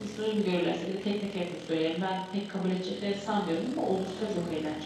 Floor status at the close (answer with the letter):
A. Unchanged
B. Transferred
B